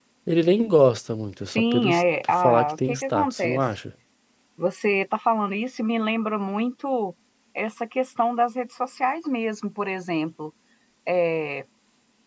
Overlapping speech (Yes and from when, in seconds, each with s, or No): Yes, from 1.6 s